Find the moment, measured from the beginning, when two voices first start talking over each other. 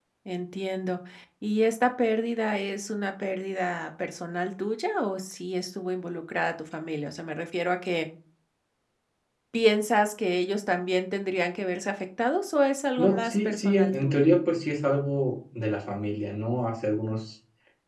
13 s

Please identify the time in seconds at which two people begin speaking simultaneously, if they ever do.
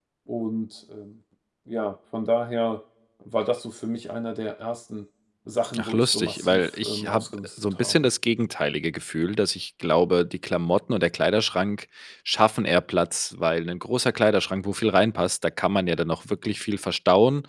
6 s

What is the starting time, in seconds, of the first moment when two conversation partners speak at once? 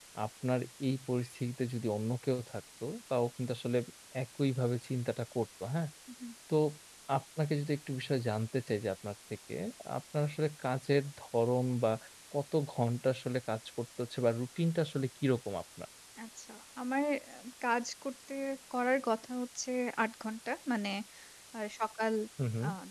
none

